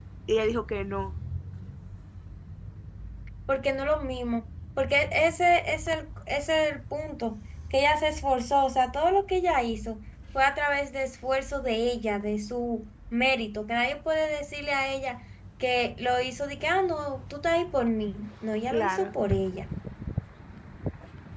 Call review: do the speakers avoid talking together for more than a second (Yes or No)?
Yes